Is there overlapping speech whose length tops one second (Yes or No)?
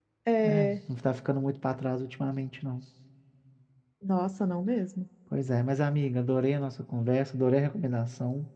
No